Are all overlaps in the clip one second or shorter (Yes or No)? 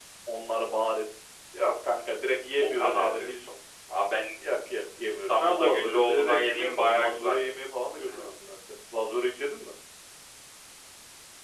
No